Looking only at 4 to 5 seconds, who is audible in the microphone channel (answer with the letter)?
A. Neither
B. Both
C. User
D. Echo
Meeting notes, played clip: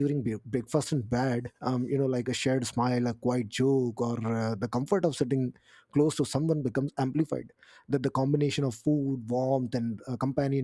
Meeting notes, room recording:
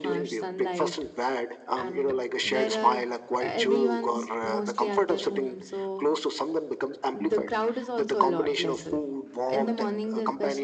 B